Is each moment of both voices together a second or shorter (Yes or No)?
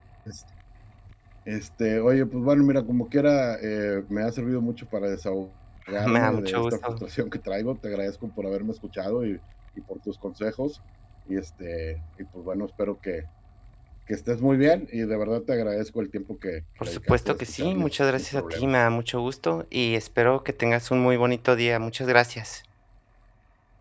No